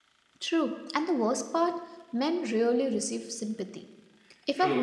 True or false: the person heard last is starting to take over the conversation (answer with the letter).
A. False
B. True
A